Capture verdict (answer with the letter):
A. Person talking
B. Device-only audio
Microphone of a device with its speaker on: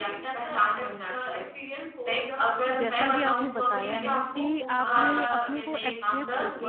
A